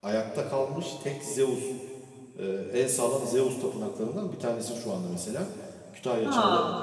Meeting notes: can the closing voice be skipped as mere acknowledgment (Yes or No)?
Yes